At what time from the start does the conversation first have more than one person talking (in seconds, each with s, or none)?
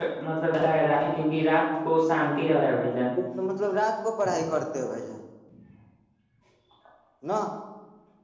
none